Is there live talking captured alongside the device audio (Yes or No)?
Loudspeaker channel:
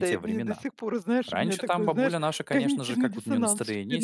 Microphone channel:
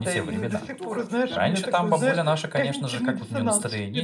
Yes